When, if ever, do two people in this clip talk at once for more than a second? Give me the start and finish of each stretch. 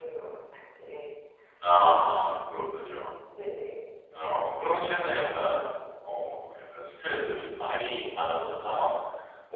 none

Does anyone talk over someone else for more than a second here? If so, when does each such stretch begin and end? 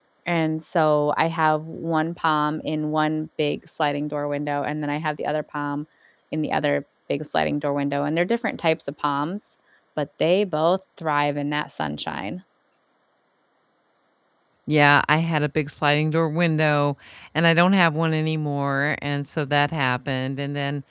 none

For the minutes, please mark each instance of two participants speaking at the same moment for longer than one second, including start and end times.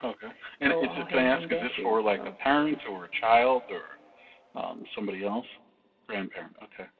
0.7-2.2

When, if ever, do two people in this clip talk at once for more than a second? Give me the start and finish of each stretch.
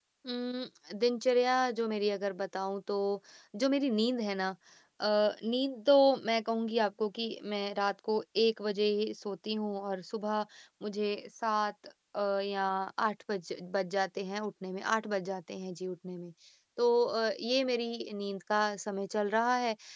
none

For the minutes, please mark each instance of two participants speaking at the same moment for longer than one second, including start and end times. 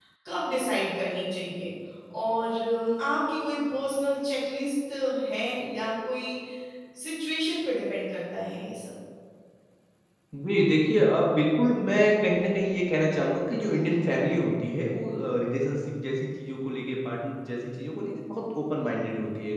none

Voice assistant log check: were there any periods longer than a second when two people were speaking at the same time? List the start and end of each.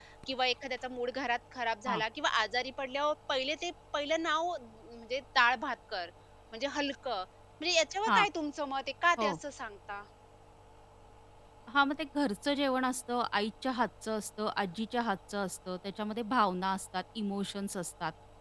none

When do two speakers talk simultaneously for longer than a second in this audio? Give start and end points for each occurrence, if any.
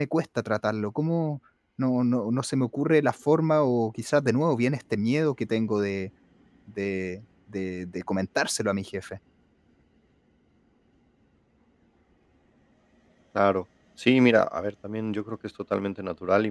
none

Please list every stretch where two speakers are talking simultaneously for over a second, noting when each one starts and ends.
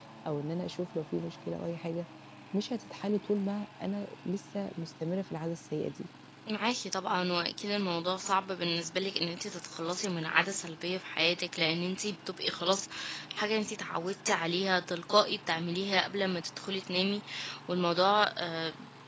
none

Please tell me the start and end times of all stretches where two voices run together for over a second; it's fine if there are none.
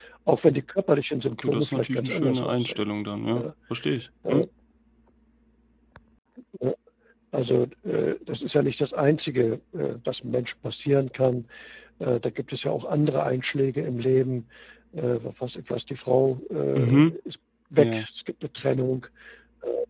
1.3-2.9

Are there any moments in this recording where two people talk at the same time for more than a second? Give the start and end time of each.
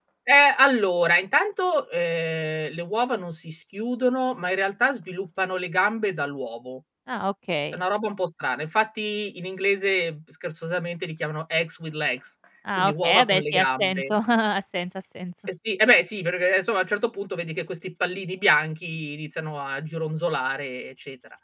12.8-14.1

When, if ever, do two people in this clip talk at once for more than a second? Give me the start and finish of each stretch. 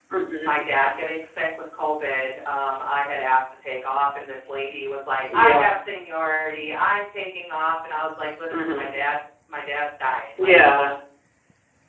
none

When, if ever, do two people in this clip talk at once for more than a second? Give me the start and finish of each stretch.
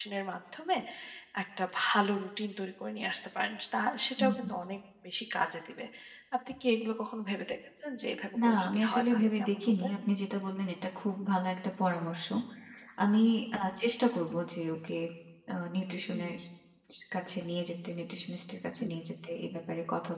8.4-9.9

